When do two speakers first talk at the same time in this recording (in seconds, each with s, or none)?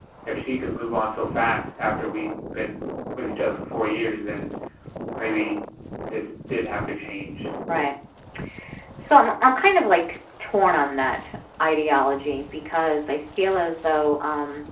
none